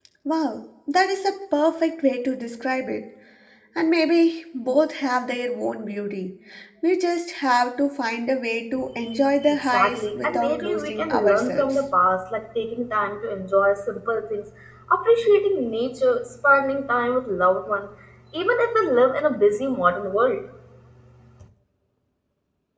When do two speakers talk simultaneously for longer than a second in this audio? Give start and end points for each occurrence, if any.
9.7-11.7

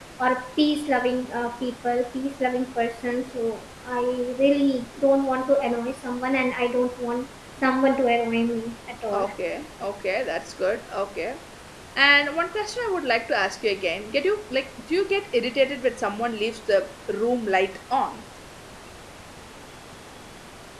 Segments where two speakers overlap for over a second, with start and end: none

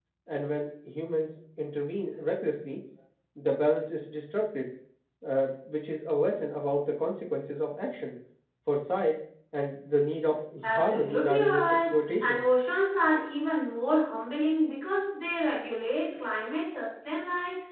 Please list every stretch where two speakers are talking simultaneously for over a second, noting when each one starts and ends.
10.6-12.4

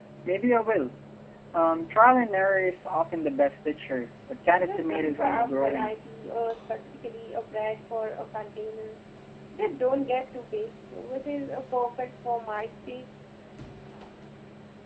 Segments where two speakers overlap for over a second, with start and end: 4.4-5.9

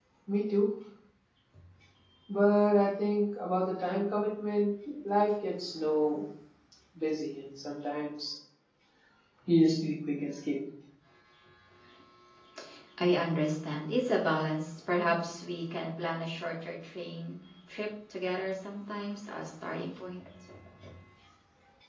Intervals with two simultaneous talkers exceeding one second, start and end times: none

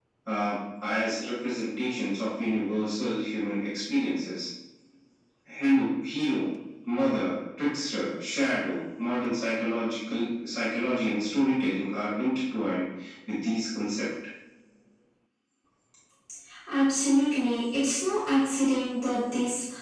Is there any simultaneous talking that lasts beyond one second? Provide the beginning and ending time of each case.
none

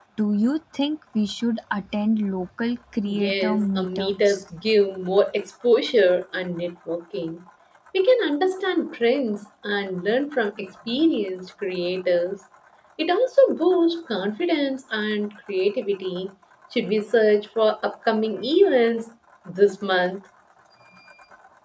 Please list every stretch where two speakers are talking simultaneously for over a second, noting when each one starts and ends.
3.2-4.4

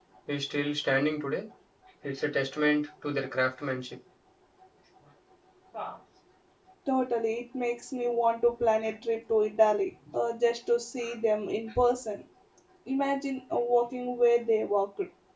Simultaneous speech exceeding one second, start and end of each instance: none

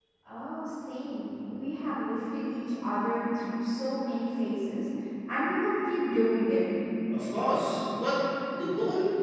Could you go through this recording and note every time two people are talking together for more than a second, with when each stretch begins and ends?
none

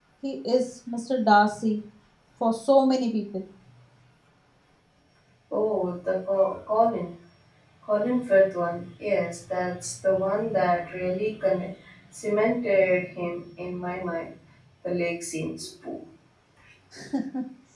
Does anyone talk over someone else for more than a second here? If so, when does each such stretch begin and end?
none

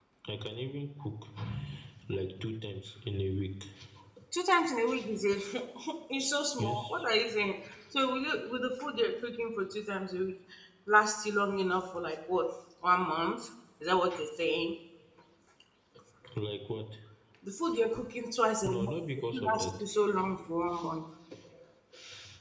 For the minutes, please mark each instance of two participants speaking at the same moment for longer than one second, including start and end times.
none

